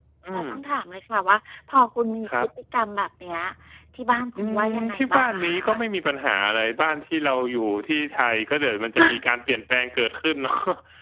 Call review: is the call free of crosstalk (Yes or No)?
No